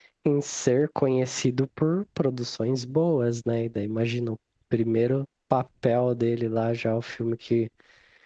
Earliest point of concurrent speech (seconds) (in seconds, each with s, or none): none